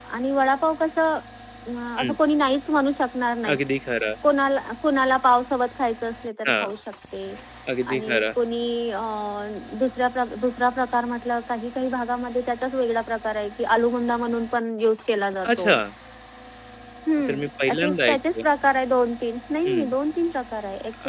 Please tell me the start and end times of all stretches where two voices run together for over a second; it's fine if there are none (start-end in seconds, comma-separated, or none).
17.2-18.4